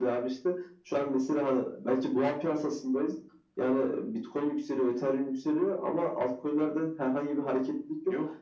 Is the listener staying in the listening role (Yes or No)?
Yes